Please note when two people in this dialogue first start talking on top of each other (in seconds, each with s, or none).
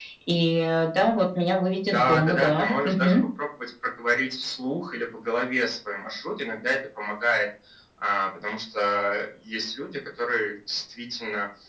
1.9 s